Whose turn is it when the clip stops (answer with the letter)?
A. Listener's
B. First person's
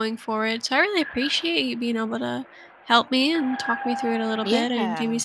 B